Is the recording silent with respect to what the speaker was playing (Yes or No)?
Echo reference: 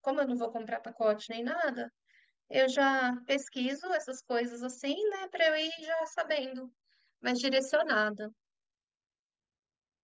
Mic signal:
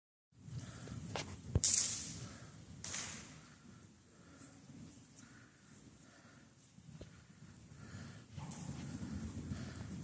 Yes